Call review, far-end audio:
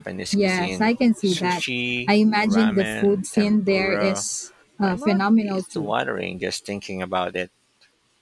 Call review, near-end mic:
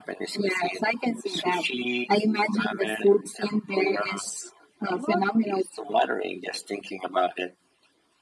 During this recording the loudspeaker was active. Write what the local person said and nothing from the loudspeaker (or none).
none